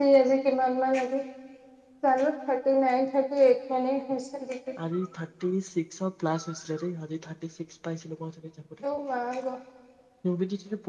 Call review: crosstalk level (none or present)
none